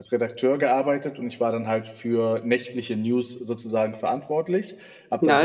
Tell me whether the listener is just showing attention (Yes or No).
No